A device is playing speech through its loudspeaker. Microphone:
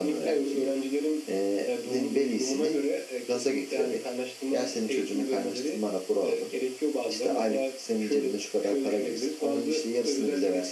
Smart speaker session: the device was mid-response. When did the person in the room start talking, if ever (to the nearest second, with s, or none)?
none